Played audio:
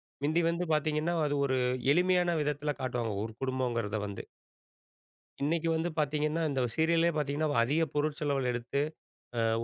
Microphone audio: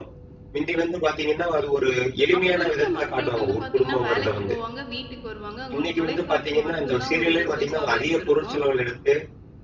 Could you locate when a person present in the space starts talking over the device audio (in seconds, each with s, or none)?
2.4 s